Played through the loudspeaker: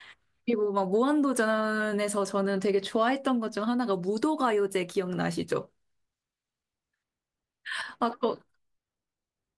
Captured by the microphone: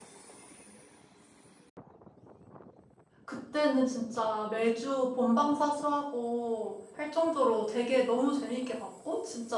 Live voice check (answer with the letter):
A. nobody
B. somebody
B